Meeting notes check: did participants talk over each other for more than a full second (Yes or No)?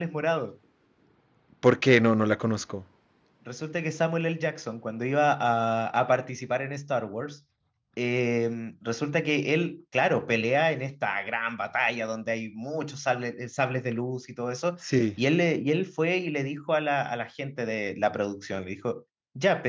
No